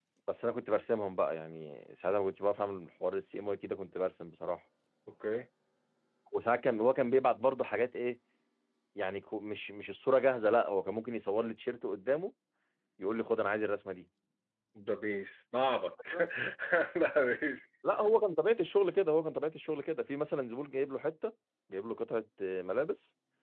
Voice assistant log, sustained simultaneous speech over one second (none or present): none